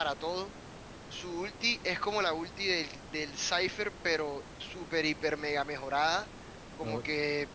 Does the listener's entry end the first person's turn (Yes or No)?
No